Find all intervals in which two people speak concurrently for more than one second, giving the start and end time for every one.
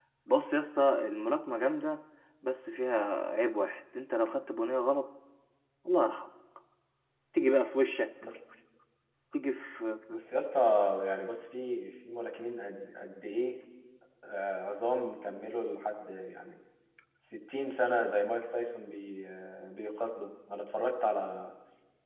none

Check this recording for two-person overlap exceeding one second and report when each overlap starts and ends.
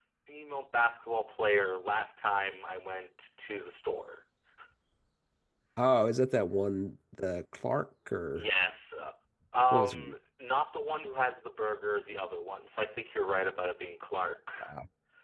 none

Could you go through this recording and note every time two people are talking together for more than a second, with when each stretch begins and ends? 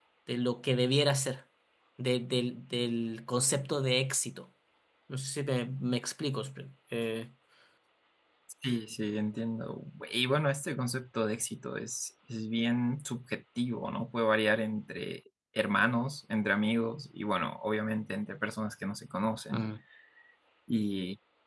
none

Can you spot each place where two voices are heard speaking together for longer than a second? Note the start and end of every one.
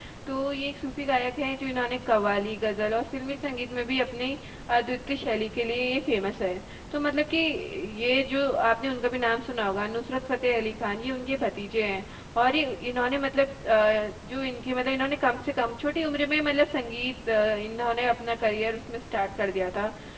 none

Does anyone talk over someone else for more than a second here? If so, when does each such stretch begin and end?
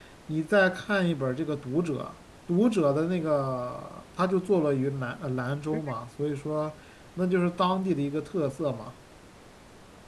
none

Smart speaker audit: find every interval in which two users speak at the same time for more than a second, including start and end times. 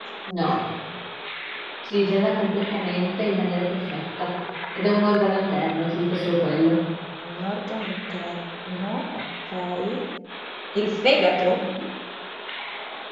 none

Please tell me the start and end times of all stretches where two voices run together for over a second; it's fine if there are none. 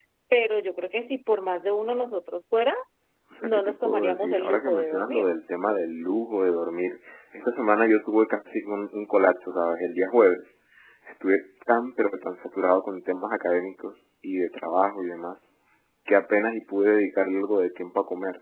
3.4-5.2

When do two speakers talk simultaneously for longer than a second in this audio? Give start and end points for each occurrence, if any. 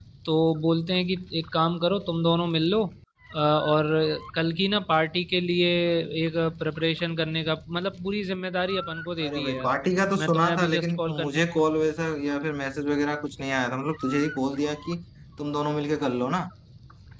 10.2-11.4

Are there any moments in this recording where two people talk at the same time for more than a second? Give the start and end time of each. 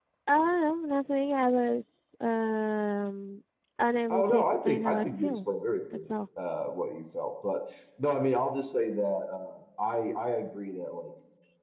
4.1-5.3

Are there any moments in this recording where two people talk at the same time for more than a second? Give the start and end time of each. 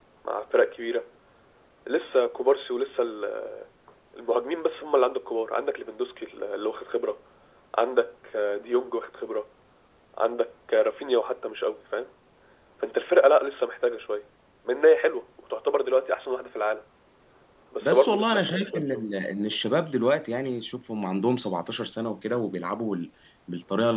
17.8-19.0

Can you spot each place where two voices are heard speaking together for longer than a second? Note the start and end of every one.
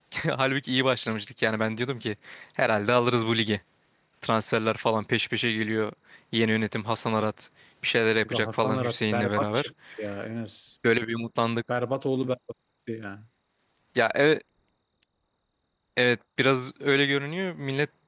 8.2-9.7

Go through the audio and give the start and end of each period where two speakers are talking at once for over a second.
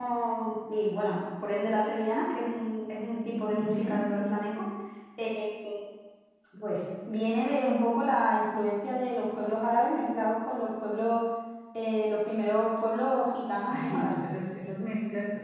none

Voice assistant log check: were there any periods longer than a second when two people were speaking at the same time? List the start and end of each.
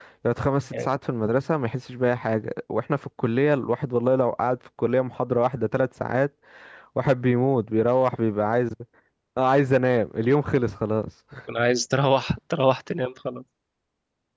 none

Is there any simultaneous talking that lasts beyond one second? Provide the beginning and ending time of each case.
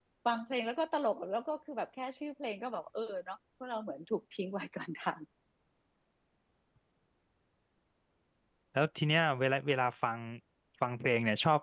none

